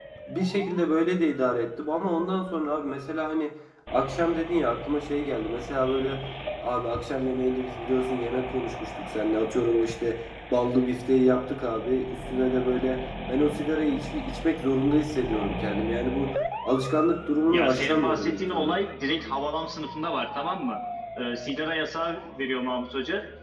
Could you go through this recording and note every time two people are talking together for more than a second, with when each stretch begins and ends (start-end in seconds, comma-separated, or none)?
17.5-18.8